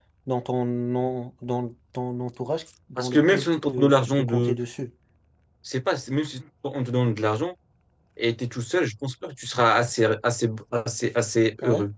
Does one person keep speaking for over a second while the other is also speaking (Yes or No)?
Yes